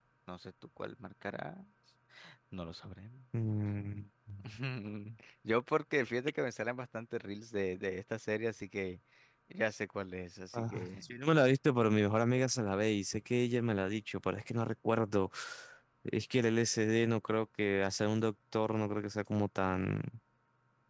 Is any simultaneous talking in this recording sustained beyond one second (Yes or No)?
No